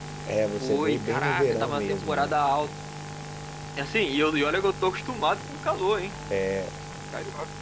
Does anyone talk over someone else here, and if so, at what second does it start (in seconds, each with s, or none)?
0.5 s